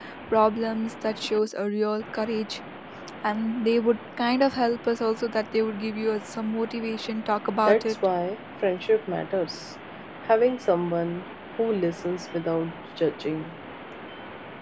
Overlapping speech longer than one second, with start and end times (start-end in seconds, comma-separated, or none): none